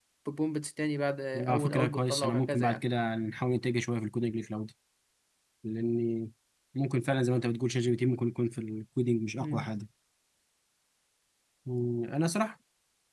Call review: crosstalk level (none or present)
present